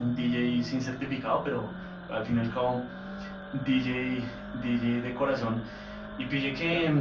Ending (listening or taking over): listening